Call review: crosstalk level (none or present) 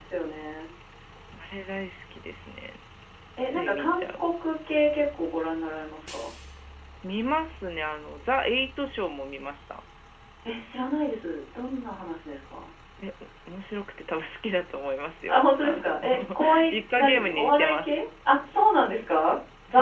present